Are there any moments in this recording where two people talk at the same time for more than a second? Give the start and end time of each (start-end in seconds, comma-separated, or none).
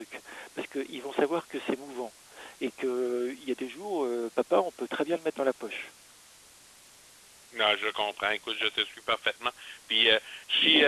none